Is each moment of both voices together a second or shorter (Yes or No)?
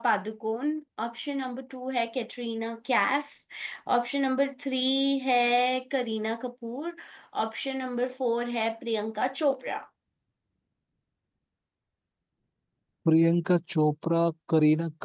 Yes